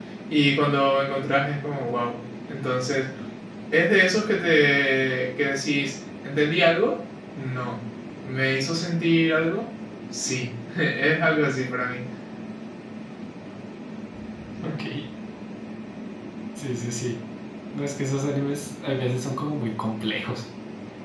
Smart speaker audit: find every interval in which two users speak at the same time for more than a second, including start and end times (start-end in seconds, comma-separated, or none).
none